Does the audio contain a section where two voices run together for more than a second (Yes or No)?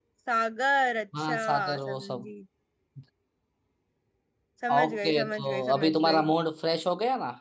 Yes